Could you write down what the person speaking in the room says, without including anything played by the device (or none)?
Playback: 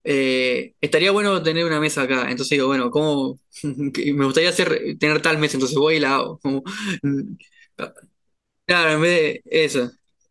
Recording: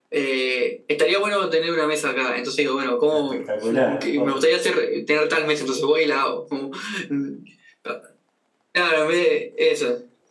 Espectacular. Oh,